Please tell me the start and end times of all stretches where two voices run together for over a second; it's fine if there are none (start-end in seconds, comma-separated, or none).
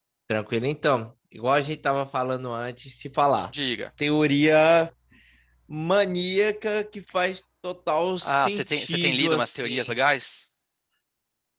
8.2-10.0